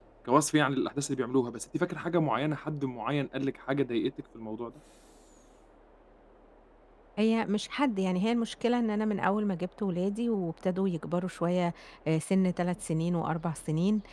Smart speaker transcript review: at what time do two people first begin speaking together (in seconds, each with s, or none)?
none